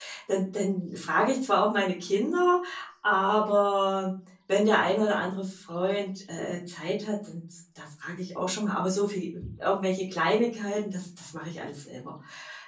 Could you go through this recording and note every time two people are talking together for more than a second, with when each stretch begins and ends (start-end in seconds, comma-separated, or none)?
none